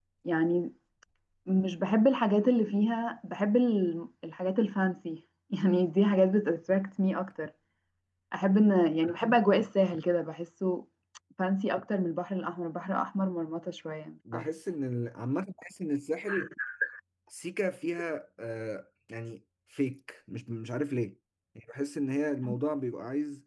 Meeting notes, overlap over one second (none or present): none